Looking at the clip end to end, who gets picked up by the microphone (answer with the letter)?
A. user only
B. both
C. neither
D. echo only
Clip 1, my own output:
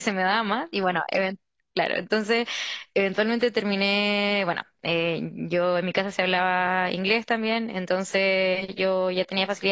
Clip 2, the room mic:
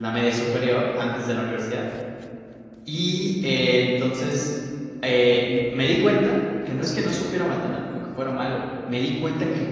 A